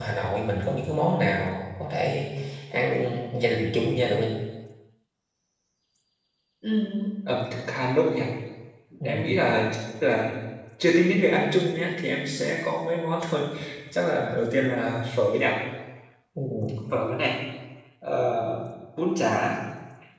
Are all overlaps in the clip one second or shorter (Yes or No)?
Yes